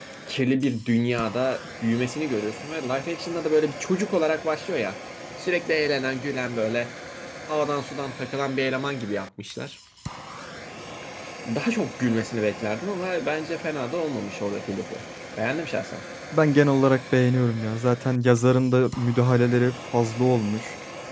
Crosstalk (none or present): none